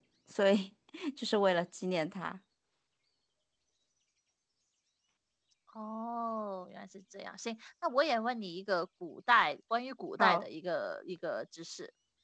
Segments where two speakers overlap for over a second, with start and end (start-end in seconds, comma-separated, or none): none